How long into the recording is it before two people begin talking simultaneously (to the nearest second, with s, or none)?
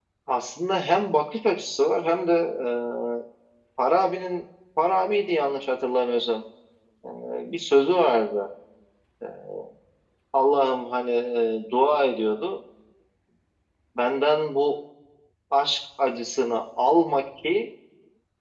none